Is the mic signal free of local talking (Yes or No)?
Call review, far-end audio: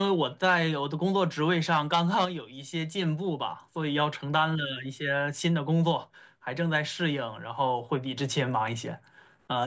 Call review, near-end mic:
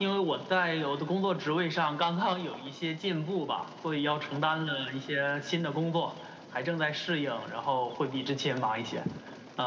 Yes